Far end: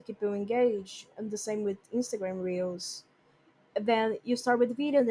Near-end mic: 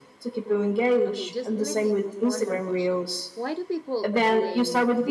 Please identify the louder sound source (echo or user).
echo